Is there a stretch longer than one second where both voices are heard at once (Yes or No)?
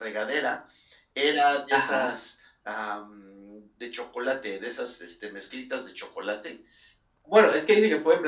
No